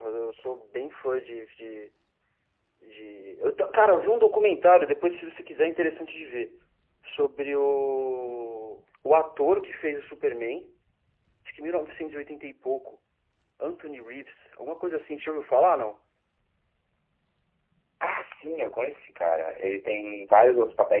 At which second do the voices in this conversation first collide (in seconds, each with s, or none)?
none